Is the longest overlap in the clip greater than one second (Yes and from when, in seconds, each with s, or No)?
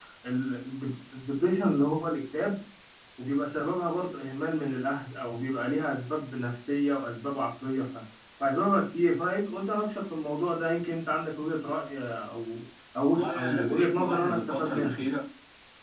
Yes, from 13.1 s